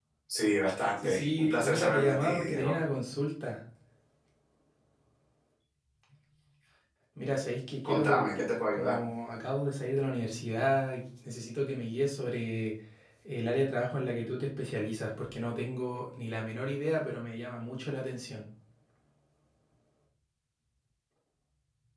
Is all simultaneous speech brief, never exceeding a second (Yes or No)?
No